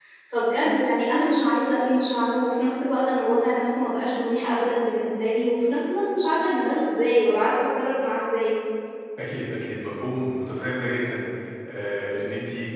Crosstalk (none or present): none